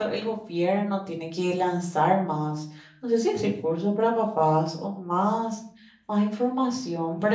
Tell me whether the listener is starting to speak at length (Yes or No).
Yes